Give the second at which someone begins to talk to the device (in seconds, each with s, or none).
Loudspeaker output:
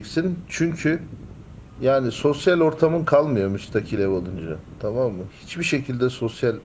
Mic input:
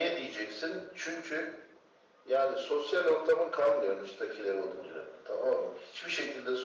none